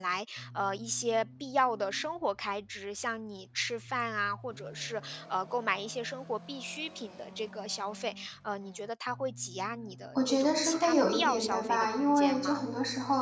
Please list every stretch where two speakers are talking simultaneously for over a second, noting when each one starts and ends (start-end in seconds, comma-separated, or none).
10.2-12.7